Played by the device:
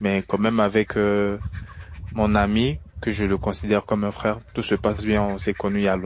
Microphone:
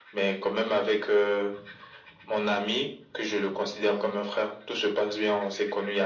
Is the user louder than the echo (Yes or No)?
No